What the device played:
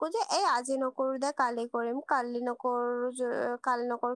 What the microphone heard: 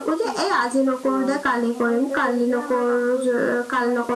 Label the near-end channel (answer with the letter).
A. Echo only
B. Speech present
B